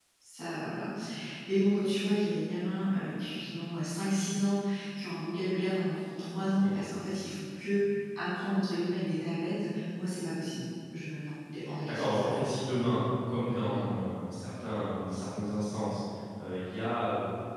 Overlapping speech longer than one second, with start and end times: none

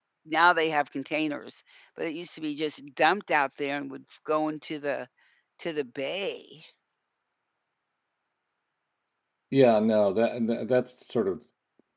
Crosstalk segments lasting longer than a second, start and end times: none

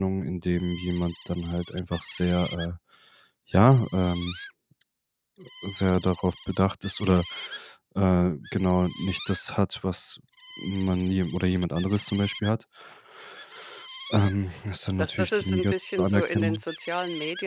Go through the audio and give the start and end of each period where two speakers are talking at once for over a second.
15.0-16.6

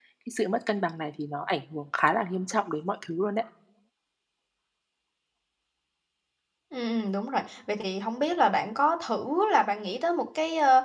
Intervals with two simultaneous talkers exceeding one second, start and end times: none

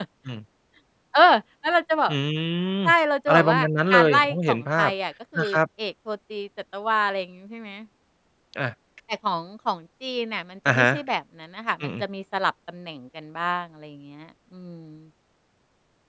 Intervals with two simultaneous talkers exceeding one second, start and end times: 3.3-4.9

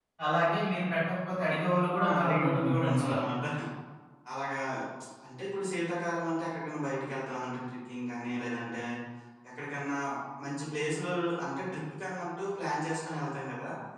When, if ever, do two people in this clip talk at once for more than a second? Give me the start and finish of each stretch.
1.8-3.2

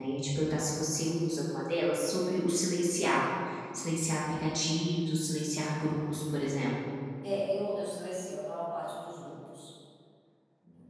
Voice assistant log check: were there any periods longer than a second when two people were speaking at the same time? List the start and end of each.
none

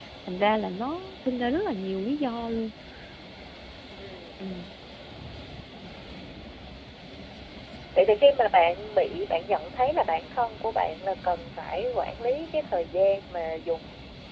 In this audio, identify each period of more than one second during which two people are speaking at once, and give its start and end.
none

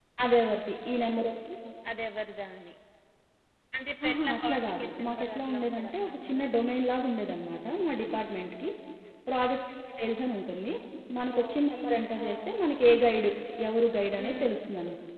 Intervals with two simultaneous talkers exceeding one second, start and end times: 4.0-6.5

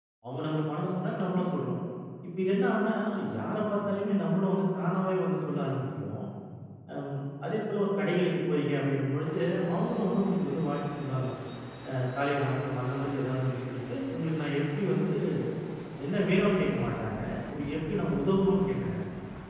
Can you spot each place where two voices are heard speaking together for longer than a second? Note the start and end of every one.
none

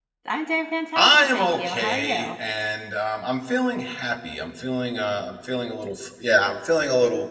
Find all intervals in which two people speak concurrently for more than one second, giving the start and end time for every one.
0.9-2.3

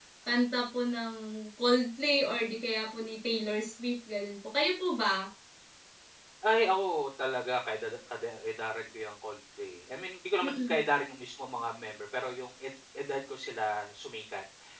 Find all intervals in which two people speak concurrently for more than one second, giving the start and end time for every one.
none

